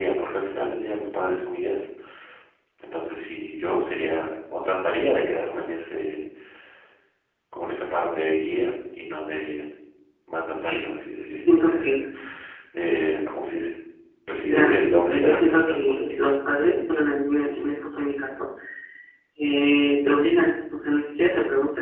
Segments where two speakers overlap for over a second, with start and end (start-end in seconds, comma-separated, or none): 14.5-16.1